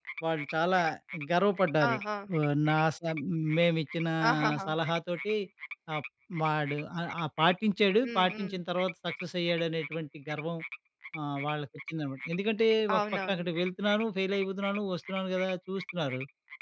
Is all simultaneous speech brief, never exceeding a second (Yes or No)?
Yes